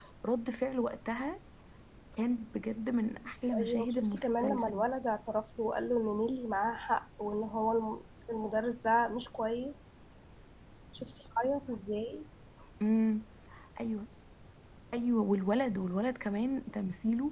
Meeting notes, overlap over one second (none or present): present